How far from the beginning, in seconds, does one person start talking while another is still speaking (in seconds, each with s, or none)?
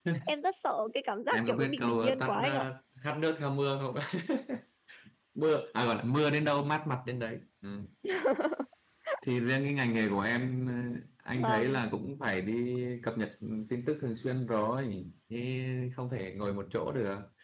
1.3 s